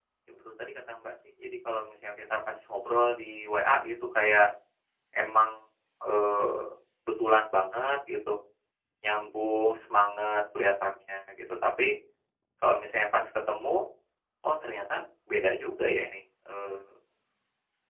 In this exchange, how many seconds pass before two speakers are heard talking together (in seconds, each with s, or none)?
none